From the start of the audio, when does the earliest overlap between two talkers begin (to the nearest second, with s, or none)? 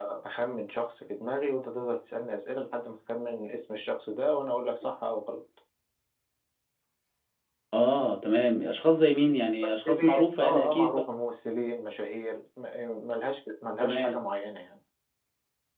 10 s